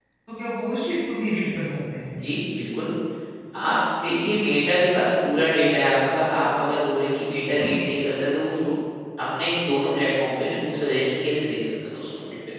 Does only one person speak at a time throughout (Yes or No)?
Yes